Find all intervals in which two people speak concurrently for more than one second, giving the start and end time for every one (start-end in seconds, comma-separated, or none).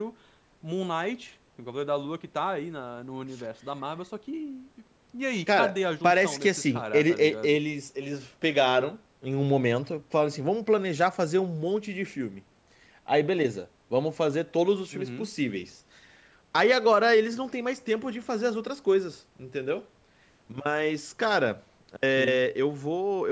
5.5-7.6